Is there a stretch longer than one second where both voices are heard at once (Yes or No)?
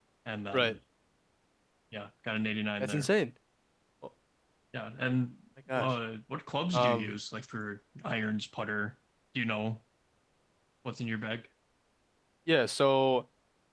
No